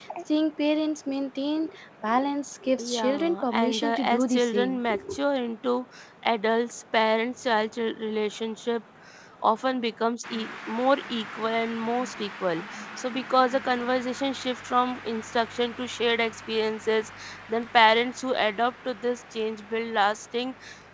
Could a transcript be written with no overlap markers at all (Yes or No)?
No